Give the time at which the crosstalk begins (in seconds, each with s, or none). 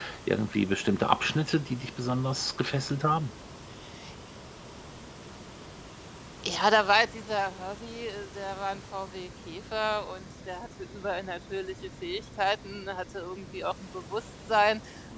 none